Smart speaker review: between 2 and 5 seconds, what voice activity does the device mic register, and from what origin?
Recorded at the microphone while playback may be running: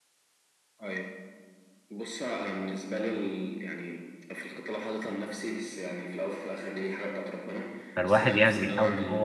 echo only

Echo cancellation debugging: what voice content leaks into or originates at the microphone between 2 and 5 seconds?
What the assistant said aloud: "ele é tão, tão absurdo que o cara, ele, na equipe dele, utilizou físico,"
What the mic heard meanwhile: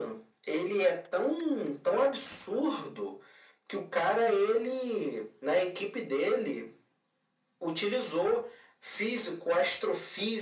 echo only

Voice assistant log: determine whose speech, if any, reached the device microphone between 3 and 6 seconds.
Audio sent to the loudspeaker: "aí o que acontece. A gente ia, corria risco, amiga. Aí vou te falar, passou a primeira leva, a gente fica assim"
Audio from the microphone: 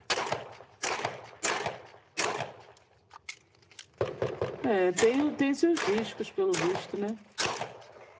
user only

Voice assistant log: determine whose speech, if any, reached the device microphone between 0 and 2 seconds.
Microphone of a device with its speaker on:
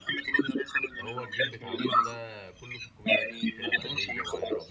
both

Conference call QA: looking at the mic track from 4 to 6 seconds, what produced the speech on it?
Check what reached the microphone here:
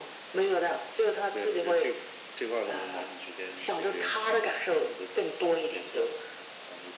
echo only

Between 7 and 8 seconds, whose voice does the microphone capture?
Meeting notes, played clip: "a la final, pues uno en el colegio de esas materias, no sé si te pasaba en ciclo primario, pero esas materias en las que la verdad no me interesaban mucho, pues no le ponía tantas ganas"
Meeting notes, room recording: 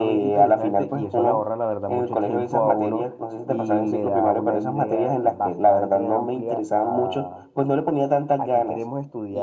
both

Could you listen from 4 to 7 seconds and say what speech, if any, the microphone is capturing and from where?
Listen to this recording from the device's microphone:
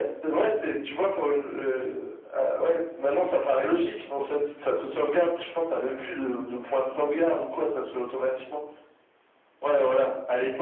echo only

